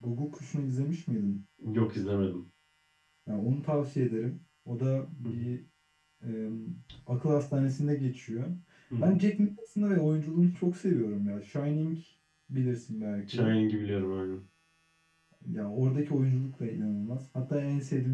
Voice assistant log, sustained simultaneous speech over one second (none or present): none